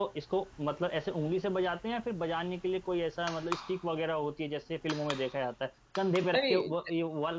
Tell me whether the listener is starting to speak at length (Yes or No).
No